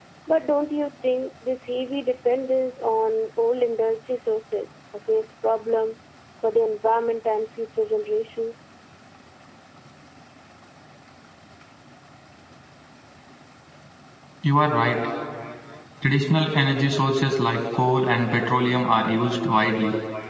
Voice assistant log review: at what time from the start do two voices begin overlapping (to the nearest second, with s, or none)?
none